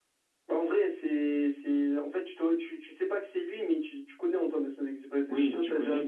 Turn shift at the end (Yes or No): Yes